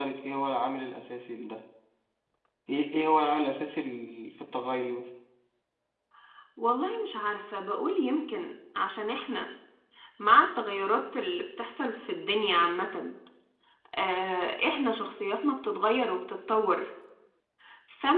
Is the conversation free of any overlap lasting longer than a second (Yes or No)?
Yes